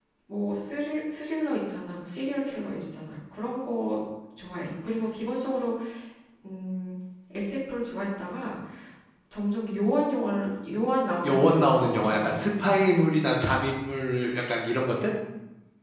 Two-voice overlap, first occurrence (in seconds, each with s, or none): 11.2 s